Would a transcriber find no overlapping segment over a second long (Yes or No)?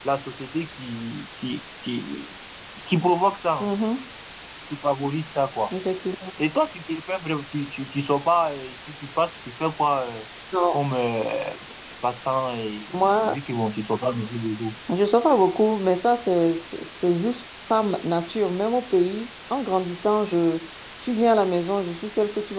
Yes